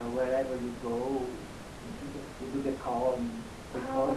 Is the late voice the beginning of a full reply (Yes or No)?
No